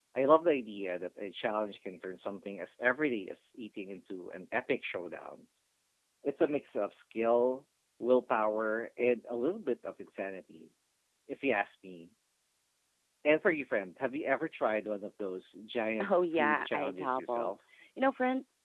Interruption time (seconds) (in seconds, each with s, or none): 16.0 s